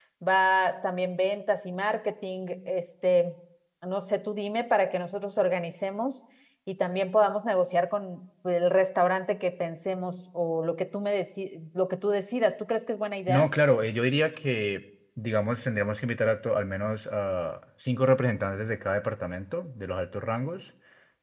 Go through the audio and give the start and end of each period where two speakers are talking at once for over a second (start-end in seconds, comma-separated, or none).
none